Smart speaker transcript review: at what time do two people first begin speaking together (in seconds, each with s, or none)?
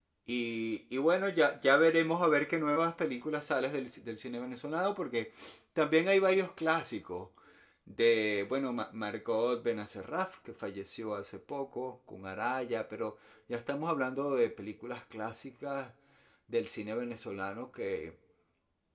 none